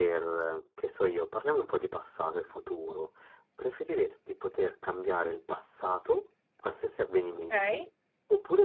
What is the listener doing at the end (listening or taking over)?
listening